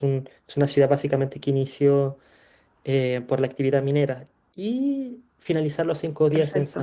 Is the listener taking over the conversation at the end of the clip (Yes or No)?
No